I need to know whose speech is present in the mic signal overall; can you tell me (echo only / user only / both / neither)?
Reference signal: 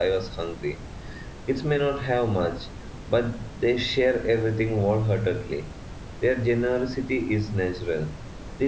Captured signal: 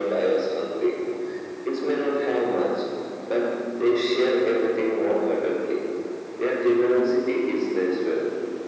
echo only